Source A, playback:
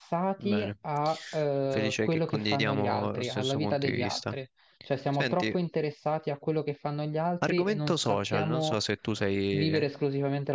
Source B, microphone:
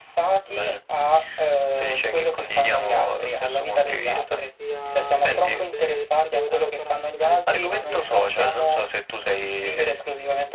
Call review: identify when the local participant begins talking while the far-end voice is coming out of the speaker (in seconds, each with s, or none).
3.8 s